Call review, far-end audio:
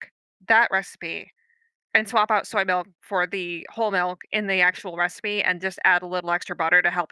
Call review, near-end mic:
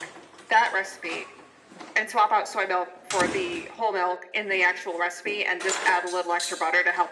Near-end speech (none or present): none